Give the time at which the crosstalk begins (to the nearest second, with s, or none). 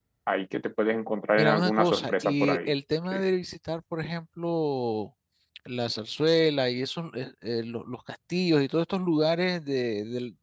1 s